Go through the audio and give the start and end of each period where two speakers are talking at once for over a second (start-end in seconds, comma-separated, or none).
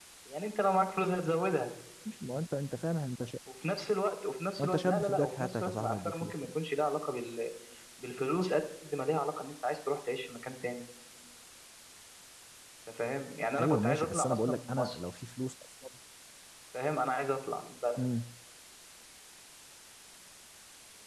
4.6-6.5, 13.6-15.0